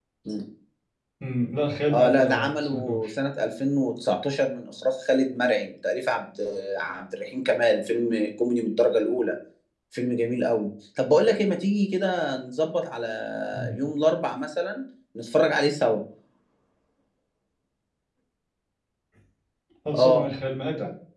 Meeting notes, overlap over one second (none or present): present